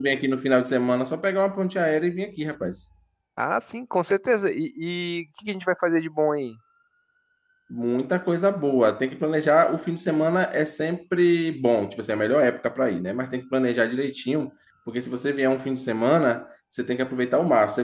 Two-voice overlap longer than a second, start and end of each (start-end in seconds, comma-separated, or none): none